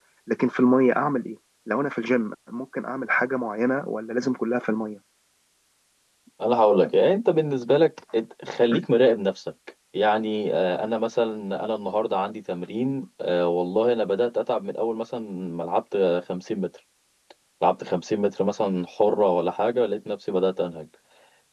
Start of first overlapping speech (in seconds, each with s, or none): none